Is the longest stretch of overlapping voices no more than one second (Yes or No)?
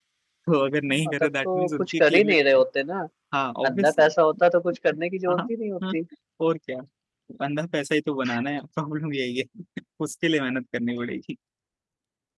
No